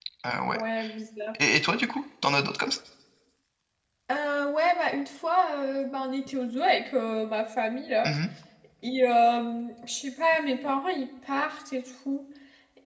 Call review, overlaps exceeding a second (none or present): none